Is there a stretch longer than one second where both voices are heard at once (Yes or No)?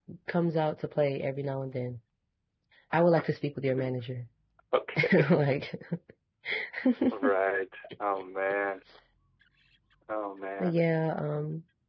No